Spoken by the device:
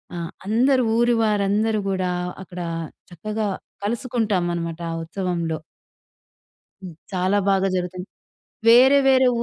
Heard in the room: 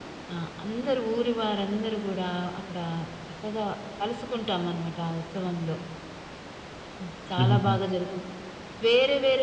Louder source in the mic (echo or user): user